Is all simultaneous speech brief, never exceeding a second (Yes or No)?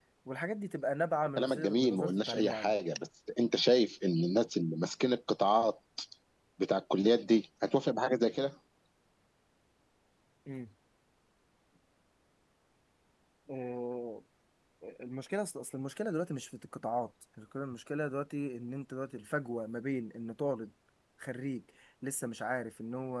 No